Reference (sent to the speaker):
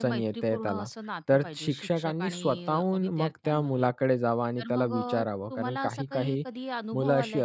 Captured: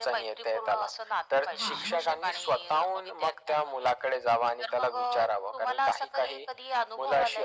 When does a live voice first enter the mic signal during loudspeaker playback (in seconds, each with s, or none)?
1.6 s